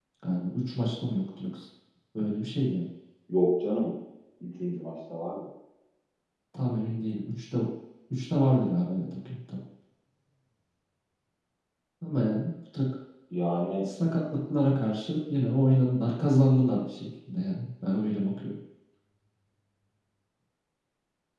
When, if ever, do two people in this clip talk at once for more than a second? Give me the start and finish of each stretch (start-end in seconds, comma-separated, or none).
none